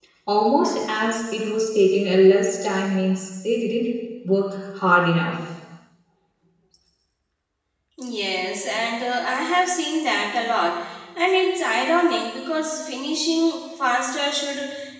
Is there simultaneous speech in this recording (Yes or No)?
No